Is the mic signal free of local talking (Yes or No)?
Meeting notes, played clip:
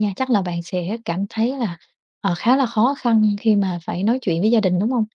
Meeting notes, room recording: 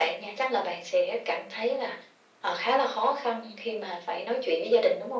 Yes